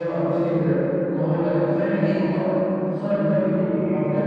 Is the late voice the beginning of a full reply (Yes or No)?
Yes